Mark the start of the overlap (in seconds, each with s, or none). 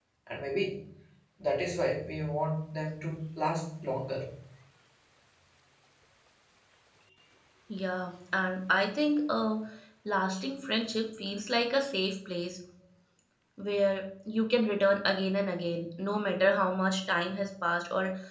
none